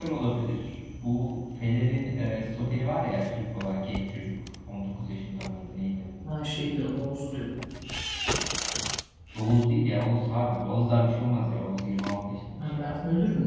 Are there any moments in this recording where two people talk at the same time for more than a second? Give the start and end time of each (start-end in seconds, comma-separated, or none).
none